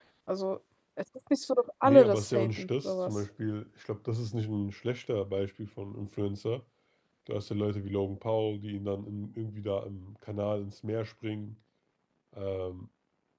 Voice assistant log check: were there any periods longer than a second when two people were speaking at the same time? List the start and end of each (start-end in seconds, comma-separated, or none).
1.8-3.1